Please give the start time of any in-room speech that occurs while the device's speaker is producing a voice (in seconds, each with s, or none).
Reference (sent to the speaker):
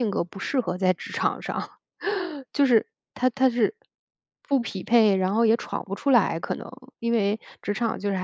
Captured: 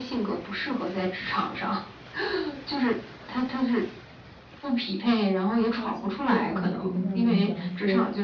5.7 s